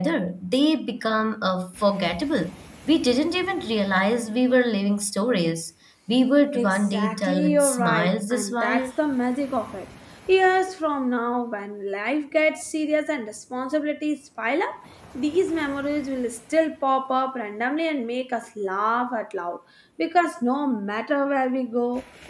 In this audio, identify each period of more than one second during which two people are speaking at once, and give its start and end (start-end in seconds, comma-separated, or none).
6.5-8.9